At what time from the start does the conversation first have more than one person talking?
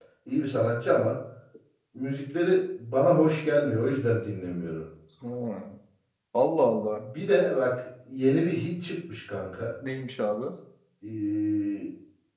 none

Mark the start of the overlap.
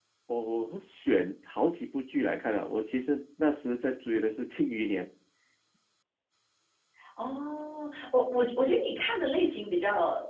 none

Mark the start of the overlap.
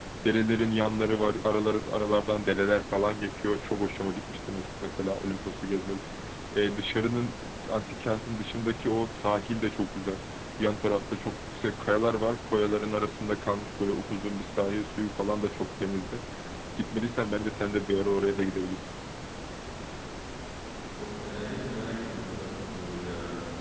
none

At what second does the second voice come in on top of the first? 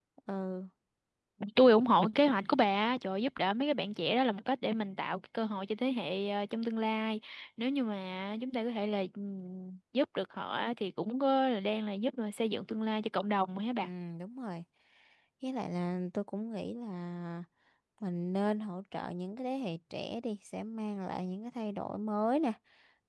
none

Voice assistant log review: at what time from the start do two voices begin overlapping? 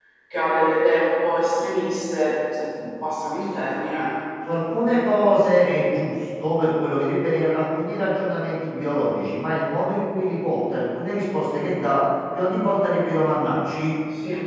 none

